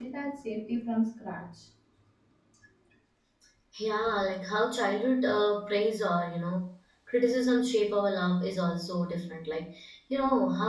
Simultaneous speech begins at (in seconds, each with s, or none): none